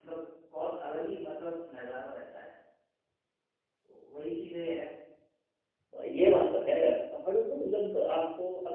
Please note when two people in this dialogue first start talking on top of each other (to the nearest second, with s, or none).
none